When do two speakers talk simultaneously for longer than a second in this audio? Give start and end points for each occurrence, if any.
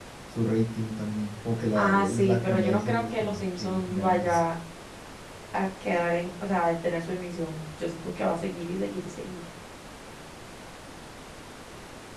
1.8-4.4

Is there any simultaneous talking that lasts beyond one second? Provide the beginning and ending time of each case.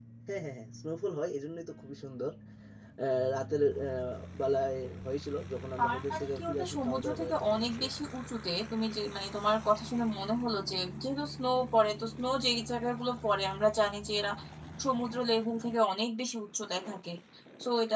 5.8-7.8

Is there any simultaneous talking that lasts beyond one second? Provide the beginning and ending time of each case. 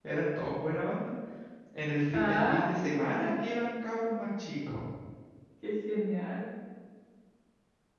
2.1-3.3

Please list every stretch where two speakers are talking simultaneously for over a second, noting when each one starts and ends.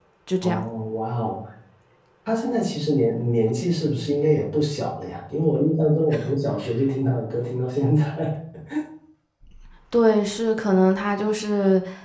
none

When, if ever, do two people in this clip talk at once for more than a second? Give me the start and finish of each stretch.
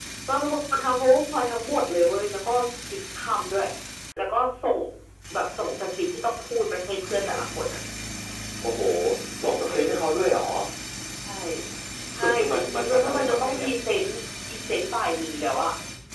12.2-13.7

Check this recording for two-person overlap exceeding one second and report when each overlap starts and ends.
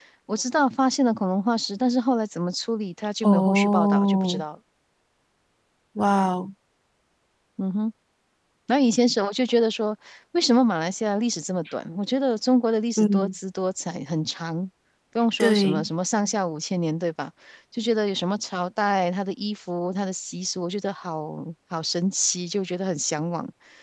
3.2-4.4

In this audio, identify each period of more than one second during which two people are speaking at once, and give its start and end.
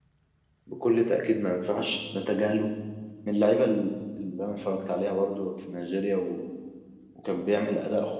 none

